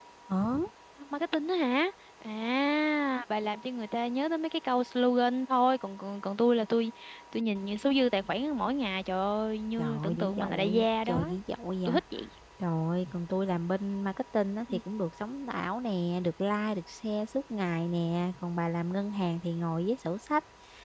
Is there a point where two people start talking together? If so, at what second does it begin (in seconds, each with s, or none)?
9.8 s